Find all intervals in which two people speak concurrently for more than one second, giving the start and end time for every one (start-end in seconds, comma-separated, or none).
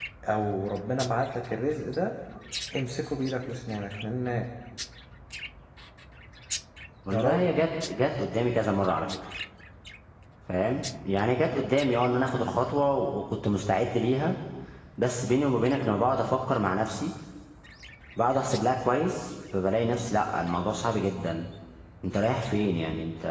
none